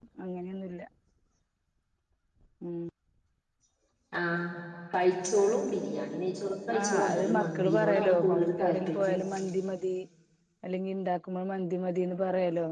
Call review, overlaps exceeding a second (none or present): present